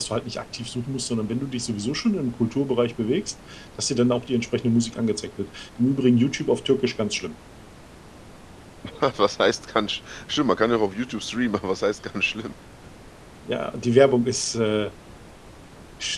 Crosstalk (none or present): none